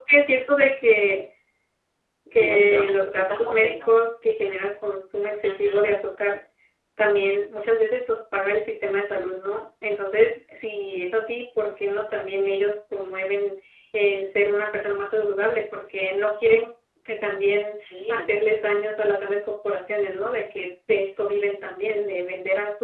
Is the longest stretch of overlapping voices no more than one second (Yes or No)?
No